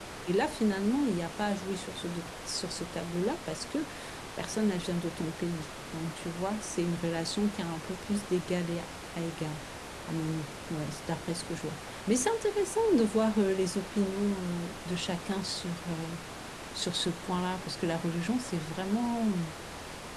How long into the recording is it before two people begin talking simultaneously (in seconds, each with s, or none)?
none